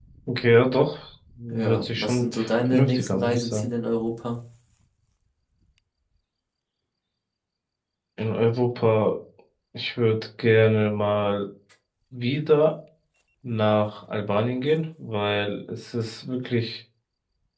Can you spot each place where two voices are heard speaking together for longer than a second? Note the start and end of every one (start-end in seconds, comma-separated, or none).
1.5-3.7